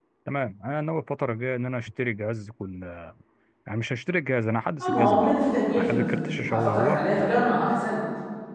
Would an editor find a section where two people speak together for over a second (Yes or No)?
Yes